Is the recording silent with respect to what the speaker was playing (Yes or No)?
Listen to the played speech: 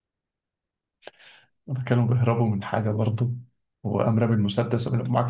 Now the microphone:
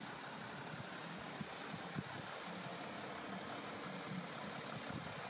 Yes